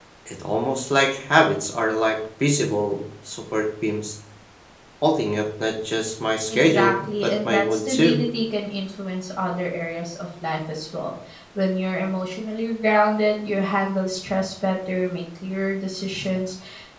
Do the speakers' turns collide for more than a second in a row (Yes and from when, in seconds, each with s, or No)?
Yes, from 6.5 s